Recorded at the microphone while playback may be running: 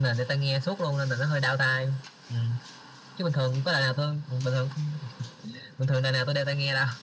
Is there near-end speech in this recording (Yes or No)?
No